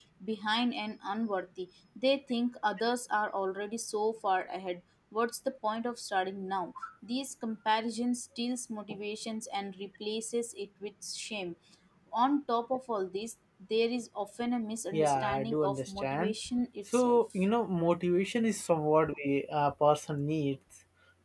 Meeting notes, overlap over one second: present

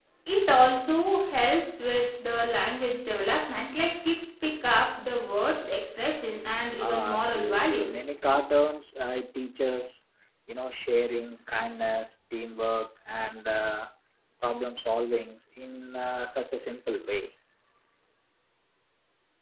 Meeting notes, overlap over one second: present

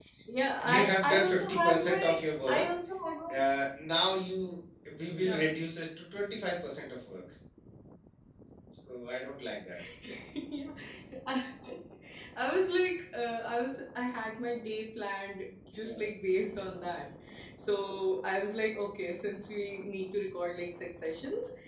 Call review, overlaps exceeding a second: present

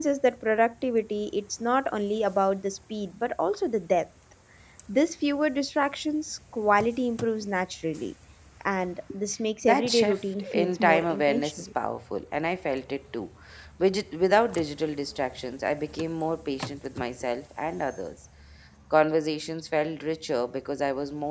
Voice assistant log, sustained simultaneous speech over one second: present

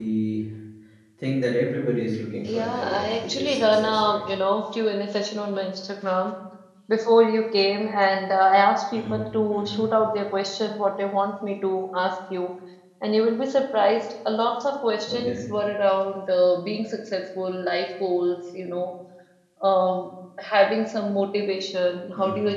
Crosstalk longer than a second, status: present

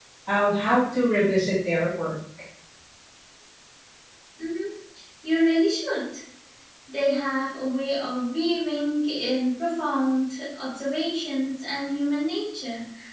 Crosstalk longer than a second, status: none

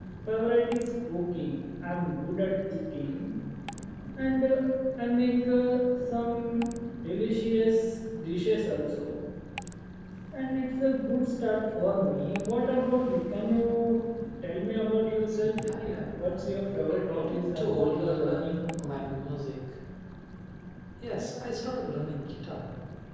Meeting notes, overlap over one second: present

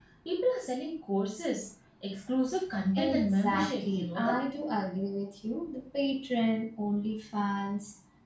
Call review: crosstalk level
present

